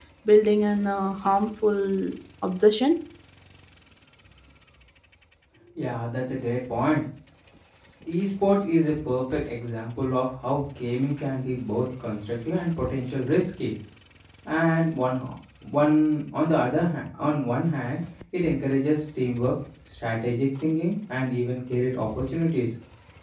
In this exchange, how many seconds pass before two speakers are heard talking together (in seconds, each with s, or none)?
none